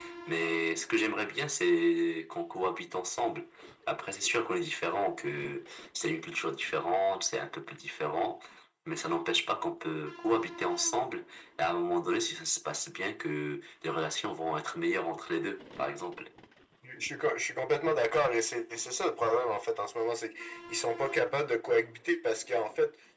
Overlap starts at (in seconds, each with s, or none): none